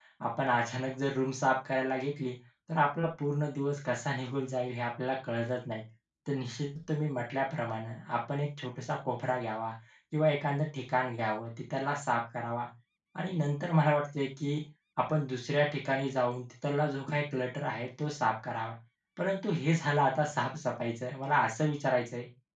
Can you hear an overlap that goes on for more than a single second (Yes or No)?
No